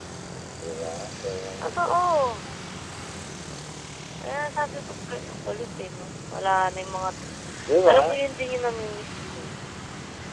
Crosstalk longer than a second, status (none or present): none